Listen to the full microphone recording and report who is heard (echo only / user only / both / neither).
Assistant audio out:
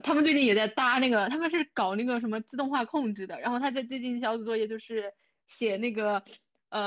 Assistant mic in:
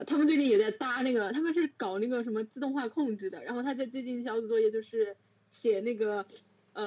echo only